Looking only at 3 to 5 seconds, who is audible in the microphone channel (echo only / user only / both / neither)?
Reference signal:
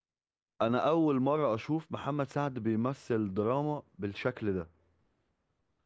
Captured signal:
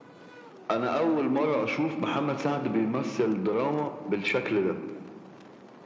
echo only